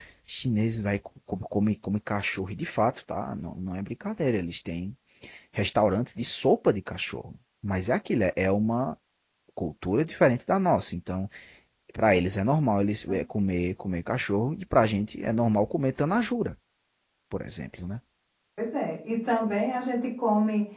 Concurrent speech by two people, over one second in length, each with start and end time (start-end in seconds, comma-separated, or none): none